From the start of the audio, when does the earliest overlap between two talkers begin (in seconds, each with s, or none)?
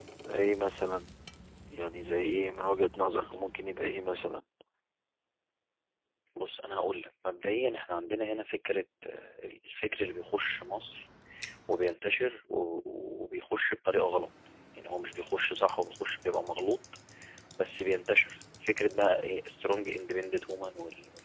none